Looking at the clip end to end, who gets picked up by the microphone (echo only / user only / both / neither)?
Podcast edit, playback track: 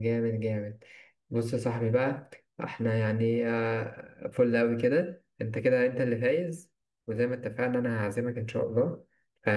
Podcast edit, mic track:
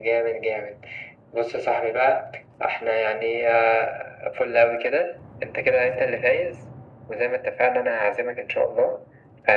echo only